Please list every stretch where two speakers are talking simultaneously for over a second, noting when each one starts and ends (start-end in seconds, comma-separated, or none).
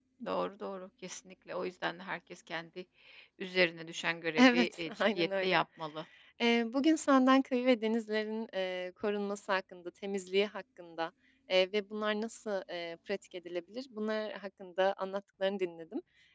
4.4-5.6